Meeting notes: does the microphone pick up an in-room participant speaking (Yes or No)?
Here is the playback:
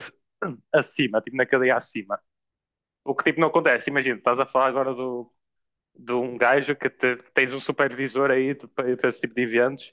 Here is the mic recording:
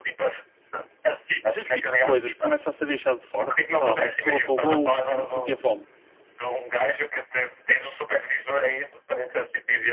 Yes